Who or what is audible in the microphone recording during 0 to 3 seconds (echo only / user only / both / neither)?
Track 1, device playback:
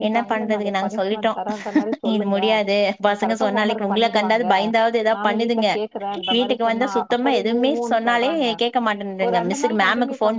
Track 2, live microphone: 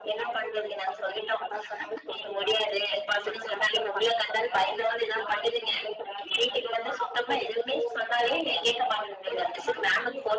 echo only